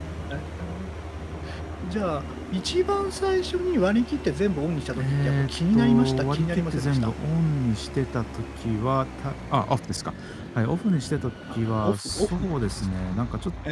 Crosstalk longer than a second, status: present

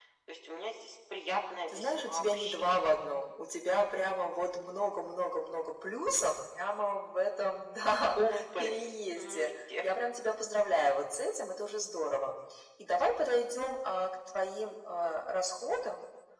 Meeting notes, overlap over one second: present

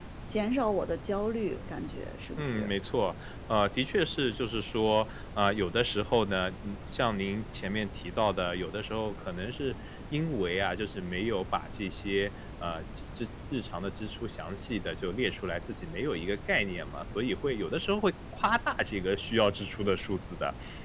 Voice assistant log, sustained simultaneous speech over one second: none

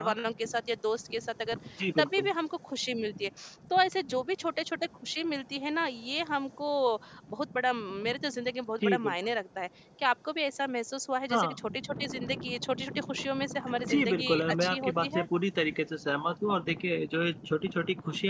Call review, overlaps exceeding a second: present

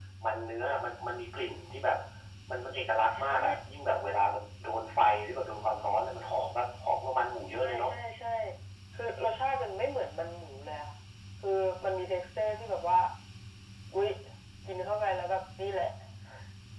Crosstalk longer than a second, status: none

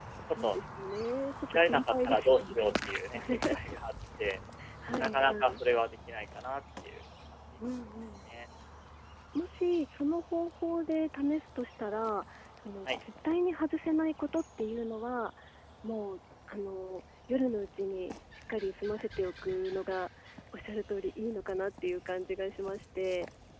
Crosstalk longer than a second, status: present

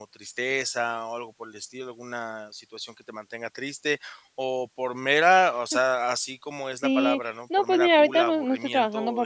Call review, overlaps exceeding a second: present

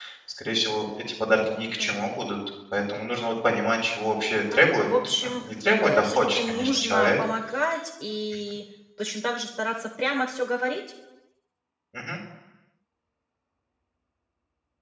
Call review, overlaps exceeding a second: present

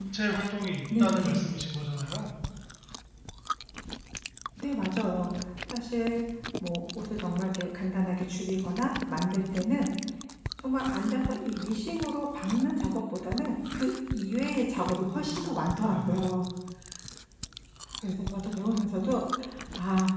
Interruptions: present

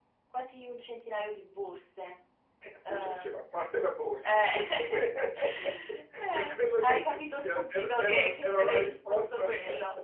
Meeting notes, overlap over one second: present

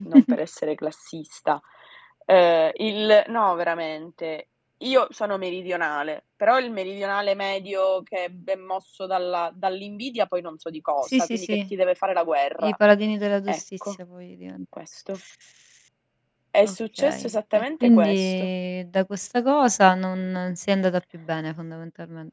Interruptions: present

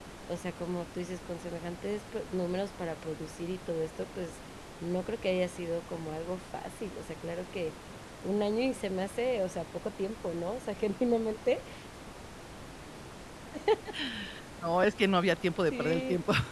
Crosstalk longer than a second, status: none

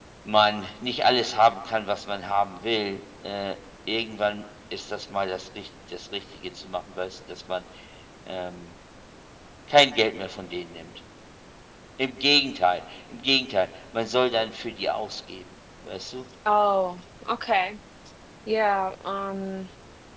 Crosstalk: none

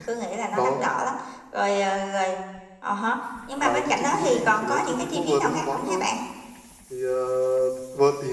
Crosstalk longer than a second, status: present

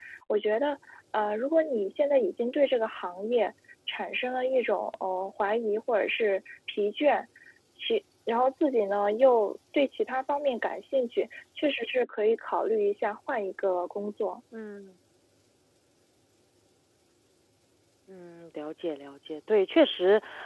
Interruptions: none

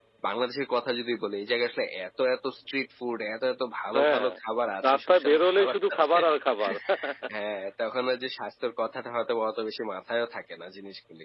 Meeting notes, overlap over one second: present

